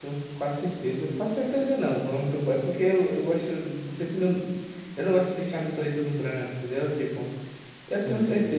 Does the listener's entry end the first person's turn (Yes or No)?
No